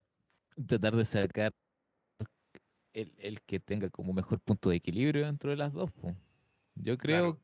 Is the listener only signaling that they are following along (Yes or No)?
No